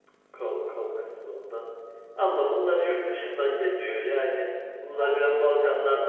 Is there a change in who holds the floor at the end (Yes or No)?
No